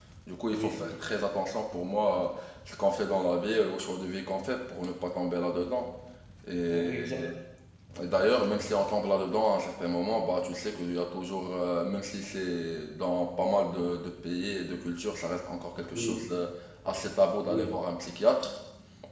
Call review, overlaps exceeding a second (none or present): none